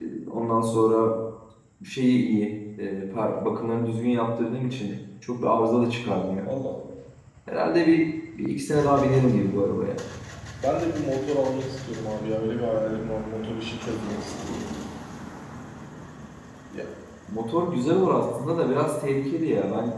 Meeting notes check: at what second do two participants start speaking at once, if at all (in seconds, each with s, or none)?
none